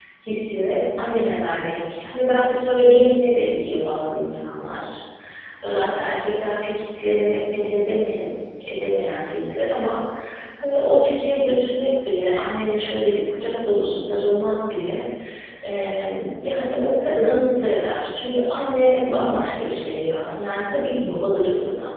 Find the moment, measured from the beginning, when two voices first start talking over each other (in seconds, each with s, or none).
none